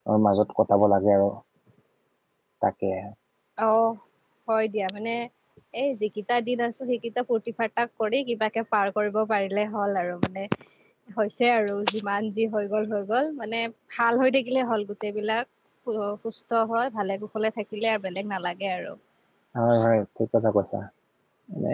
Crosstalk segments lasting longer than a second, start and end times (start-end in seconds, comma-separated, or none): none